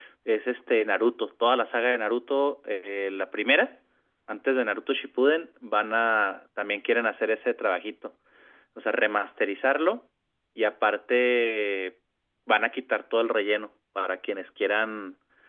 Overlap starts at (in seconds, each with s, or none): none